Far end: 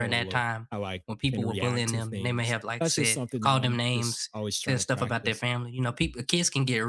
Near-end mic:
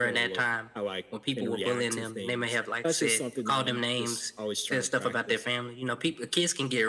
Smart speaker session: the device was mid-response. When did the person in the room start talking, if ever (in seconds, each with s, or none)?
none